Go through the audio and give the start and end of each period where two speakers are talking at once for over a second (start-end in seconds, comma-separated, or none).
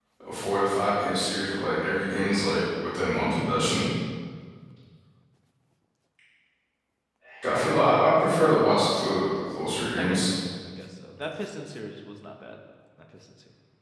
none